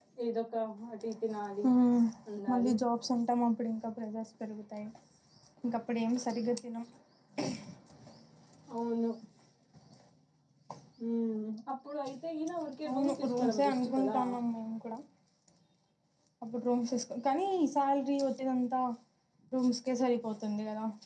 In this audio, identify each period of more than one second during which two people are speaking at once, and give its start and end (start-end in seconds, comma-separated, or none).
12.9-14.2